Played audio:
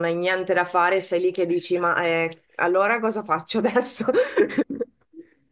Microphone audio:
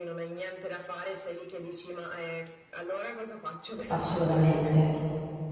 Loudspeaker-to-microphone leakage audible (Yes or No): Yes